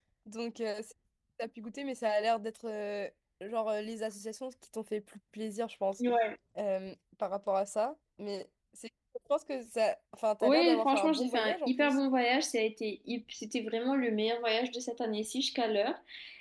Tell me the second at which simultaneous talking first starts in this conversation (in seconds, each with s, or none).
10.4 s